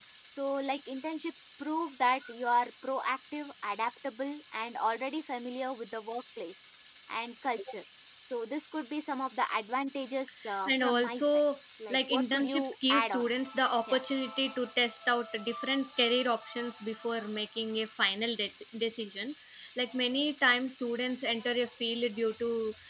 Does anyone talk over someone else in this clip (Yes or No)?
Yes